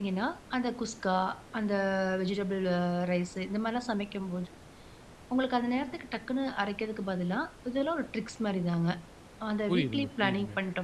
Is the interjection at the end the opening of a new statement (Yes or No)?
Yes